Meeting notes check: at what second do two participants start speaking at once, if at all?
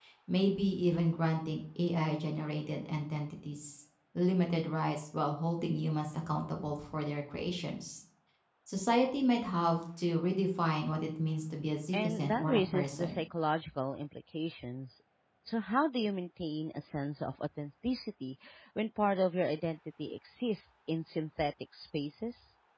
11.9 s

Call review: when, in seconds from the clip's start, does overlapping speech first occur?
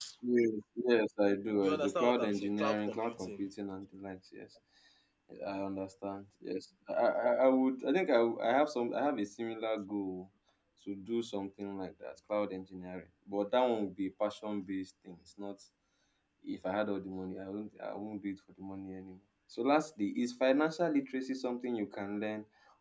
1.6 s

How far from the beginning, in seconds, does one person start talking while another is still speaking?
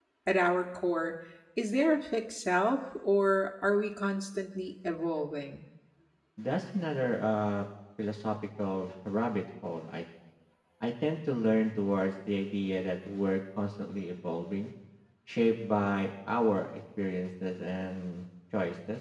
none

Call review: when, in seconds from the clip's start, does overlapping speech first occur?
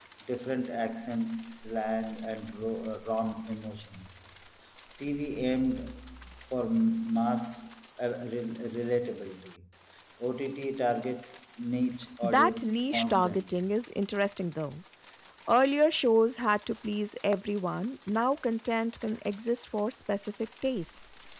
12.2 s

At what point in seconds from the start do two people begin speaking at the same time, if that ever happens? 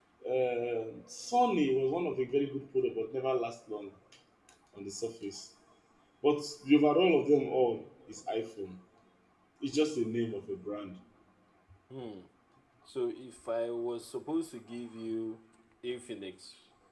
none

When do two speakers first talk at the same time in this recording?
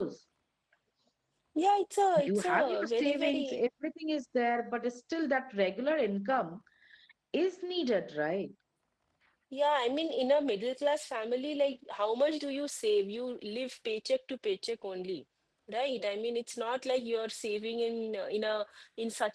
2.2 s

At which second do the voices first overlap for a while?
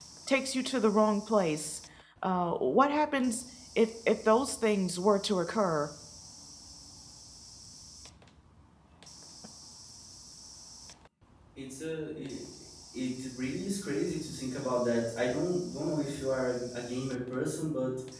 none

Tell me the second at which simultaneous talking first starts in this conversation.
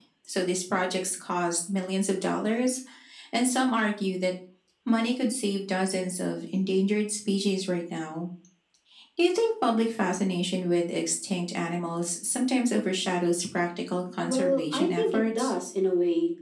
14.2 s

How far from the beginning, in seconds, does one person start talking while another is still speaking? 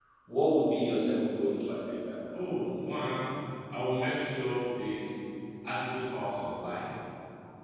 none

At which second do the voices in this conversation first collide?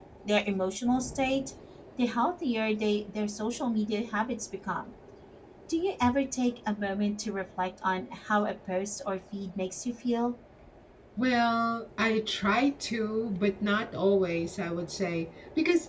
none

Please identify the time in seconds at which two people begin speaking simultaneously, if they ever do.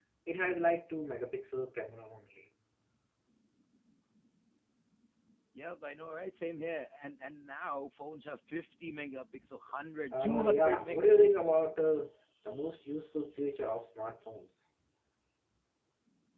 10.1 s

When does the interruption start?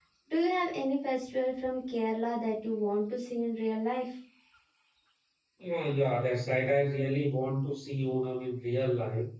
none

